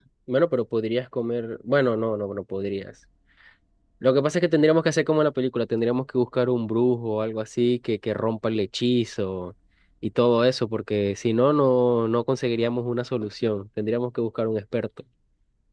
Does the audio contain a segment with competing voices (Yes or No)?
No